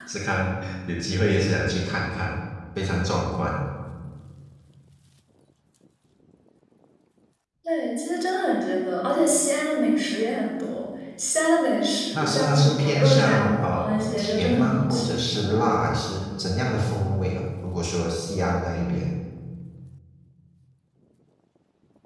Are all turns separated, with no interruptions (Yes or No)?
No